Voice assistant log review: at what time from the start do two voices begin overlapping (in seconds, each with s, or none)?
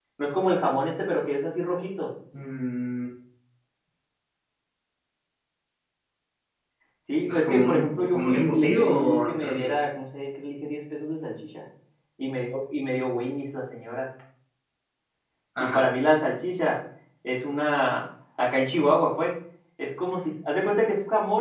7.3 s